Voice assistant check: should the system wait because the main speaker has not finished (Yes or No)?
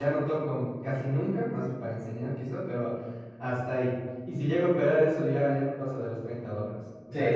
No